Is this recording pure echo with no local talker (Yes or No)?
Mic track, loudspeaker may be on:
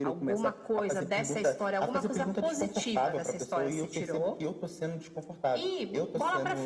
Yes